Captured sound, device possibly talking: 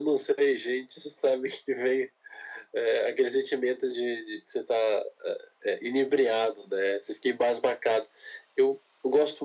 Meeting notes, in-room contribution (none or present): none